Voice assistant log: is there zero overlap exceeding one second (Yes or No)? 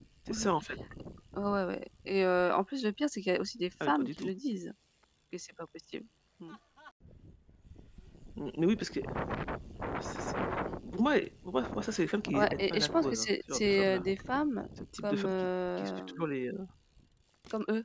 No